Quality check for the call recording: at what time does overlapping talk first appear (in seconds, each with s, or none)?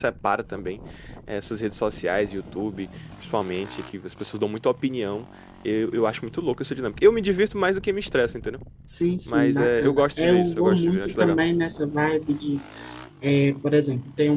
9.3 s